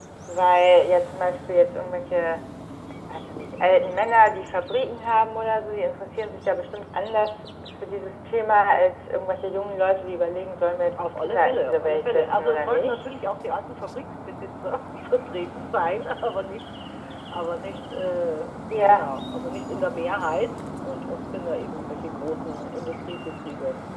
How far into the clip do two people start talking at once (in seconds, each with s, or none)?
11.0 s